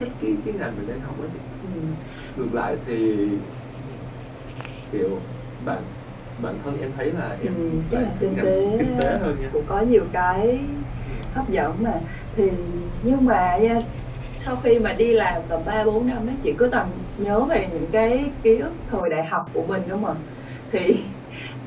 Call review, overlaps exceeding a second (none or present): present